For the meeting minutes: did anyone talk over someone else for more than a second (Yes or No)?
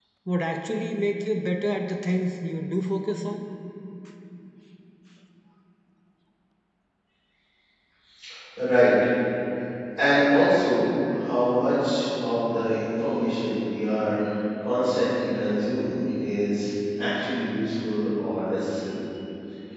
No